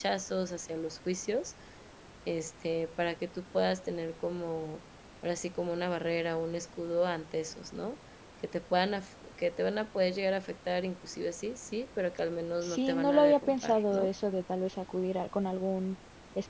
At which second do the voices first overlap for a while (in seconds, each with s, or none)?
12.6 s